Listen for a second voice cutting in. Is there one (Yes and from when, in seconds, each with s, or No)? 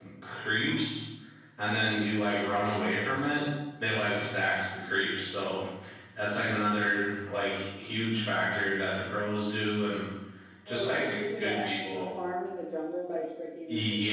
Yes, from 10.7 s